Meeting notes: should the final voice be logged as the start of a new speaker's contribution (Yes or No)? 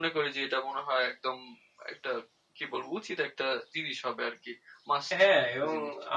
Yes